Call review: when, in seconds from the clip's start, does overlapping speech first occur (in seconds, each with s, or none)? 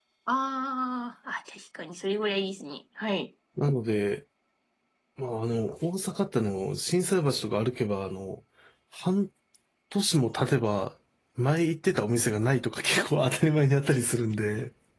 none